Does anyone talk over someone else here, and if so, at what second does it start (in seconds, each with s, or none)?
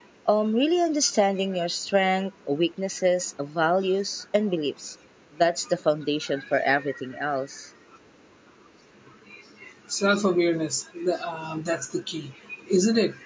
none